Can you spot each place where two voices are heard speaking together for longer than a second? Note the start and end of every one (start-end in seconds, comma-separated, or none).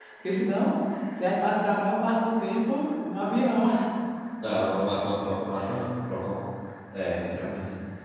none